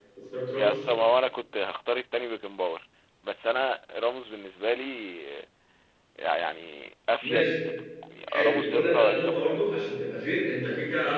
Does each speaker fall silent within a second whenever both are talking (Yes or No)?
No